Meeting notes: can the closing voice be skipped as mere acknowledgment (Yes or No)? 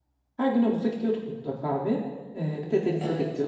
Yes